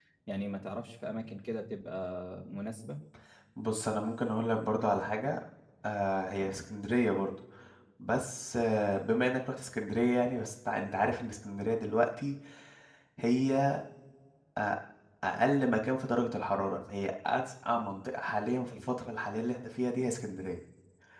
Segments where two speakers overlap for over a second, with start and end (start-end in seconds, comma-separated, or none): none